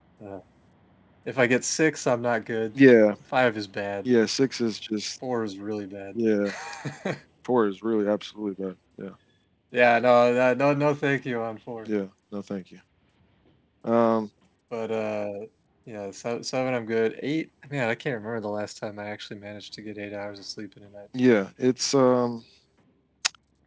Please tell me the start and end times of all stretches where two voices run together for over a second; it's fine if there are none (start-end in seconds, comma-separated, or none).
none